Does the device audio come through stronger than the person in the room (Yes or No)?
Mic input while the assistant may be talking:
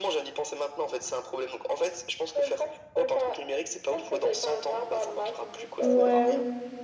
No